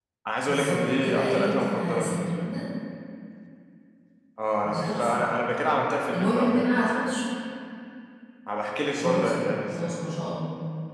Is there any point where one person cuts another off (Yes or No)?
Yes